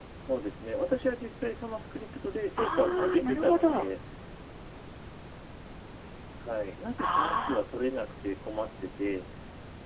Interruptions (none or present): present